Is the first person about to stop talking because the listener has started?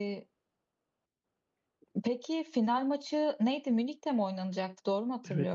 Yes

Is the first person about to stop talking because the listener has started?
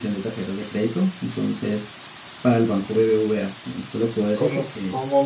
Yes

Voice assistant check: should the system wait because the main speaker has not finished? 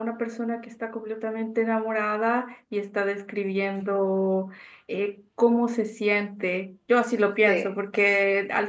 Yes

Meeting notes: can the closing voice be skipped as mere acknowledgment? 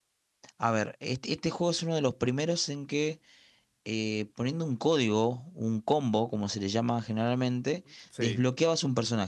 Yes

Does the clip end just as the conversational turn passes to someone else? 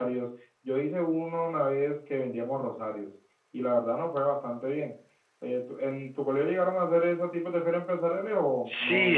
Yes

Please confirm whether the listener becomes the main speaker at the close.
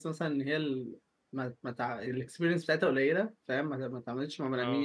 No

